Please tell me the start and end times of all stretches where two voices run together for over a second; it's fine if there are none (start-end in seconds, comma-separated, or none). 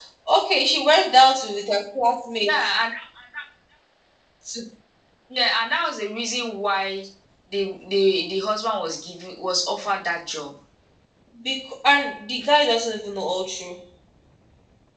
none